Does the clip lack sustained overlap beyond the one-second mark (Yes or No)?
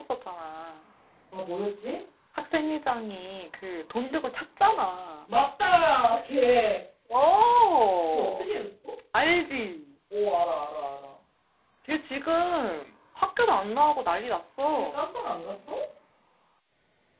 Yes